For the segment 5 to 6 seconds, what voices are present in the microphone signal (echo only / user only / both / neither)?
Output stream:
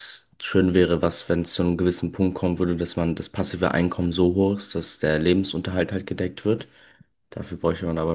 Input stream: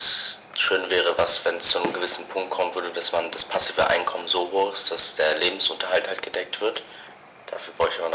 echo only